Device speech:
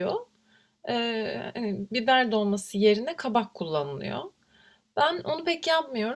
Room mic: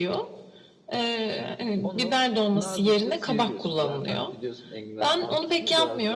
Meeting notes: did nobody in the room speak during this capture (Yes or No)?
No